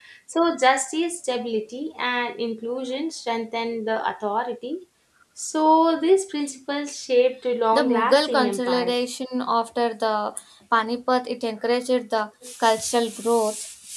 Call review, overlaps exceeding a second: present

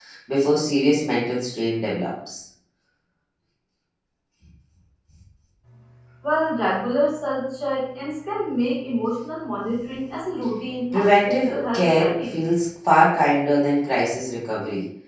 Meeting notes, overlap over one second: present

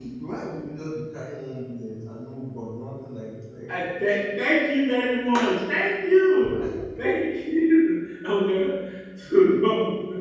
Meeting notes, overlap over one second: none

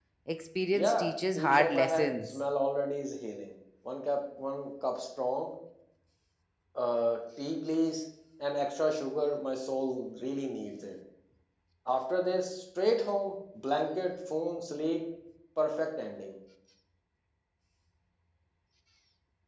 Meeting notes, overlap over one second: present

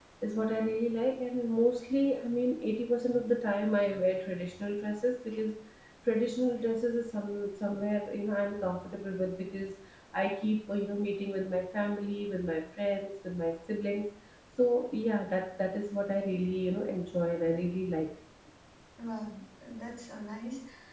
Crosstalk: none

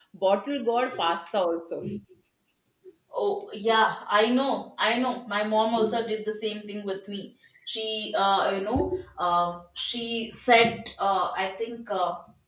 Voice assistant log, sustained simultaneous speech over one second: none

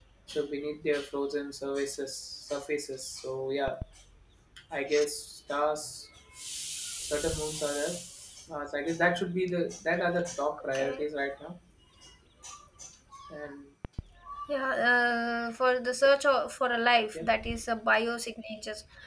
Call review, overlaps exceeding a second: none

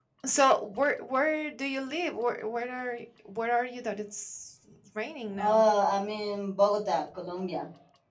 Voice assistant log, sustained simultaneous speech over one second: none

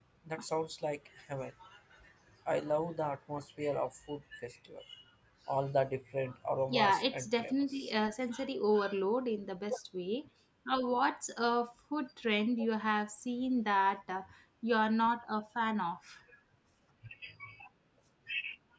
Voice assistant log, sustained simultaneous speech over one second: present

